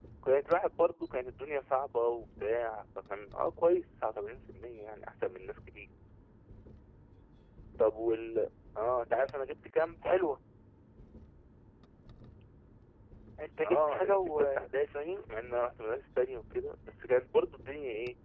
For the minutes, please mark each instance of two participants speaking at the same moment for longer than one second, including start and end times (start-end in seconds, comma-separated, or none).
13.6-15.0